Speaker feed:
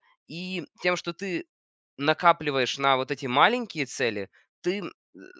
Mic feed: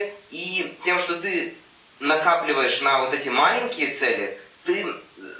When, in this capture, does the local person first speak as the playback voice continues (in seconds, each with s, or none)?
none